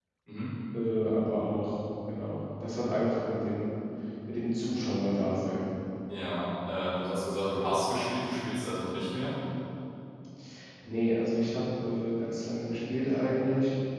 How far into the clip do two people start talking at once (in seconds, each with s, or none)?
none